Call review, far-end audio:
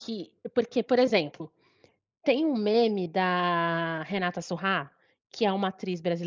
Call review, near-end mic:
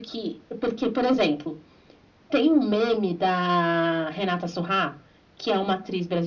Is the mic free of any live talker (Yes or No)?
Yes